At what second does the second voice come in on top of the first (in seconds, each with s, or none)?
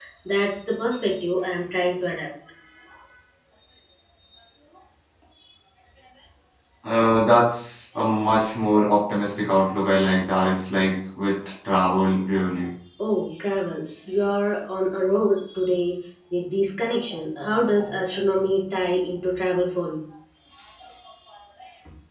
none